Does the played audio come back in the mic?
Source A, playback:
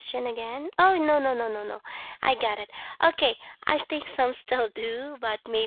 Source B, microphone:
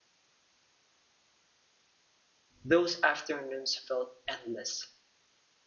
No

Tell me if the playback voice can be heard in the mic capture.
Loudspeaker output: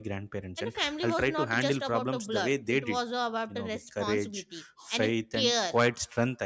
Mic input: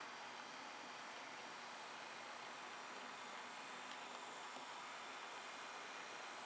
No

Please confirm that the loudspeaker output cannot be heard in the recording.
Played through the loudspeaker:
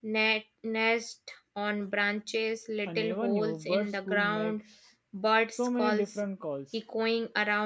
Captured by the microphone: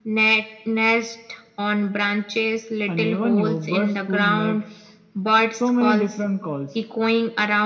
No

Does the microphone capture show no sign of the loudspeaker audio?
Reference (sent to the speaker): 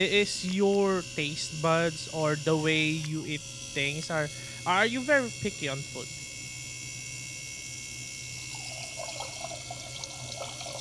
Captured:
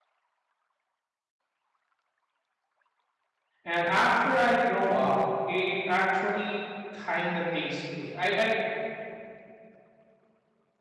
Yes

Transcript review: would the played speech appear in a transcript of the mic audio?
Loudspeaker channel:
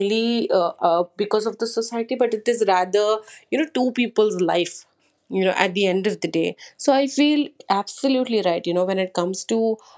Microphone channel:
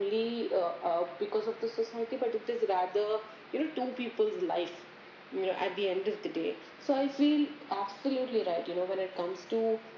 Yes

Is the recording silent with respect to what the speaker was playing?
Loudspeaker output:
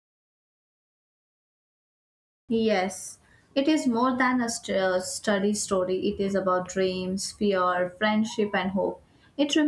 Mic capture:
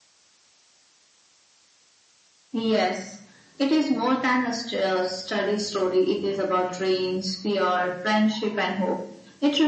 No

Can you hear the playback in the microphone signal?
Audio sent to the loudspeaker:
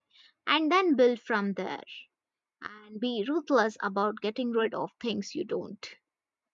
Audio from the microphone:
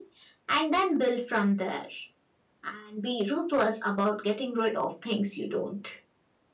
Yes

